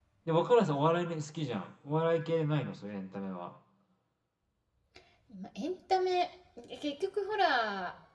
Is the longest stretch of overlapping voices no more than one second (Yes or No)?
Yes